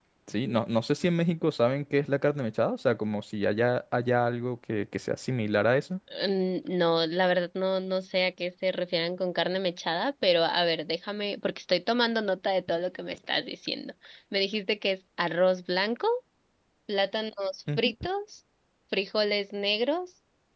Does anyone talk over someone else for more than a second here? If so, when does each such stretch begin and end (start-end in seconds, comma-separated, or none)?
none